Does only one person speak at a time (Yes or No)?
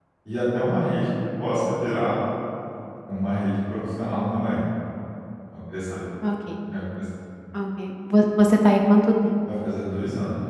Yes